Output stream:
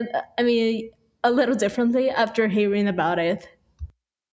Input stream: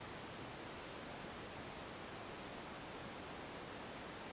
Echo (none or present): none